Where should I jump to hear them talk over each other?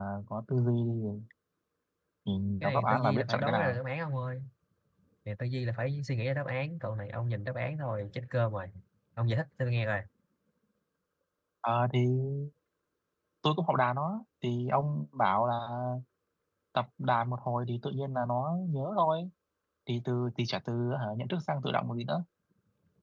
2.6 s

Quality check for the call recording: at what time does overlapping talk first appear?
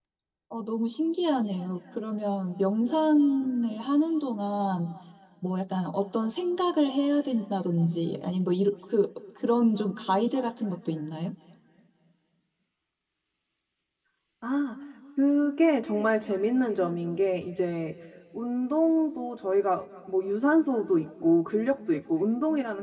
none

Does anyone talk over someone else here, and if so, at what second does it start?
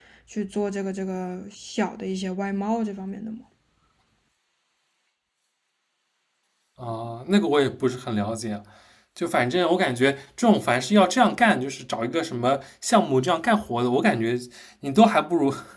none

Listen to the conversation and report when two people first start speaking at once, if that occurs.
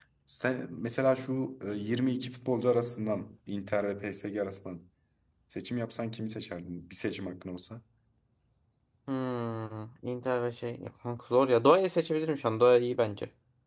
none

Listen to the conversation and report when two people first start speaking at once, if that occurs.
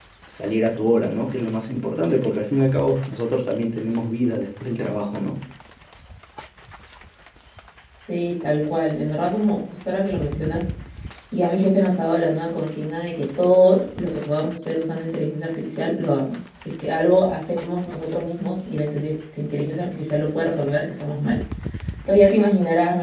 none

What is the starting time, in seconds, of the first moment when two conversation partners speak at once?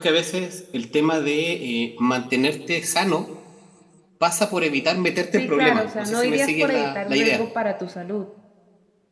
5.4 s

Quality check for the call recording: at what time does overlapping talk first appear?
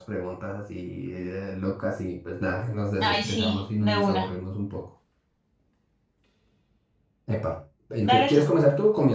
3.0 s

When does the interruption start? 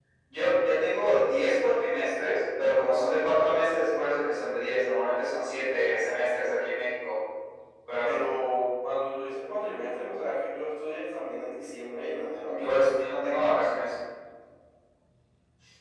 none

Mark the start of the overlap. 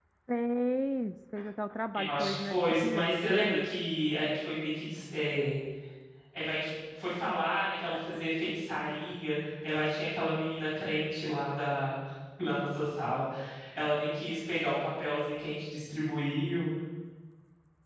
1.9 s

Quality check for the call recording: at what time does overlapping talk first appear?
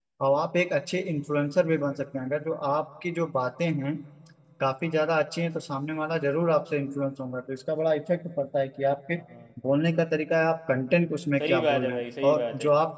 11.4 s

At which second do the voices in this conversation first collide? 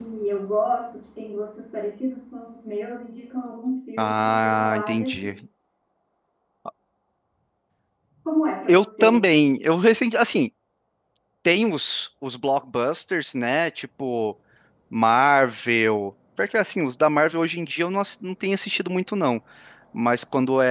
4.0 s

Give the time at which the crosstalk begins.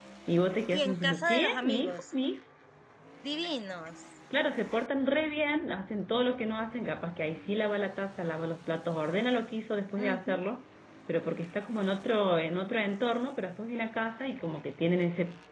0.7 s

